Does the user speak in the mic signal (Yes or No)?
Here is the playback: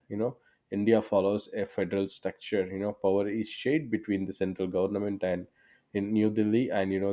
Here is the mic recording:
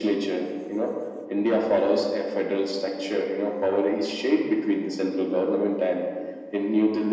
No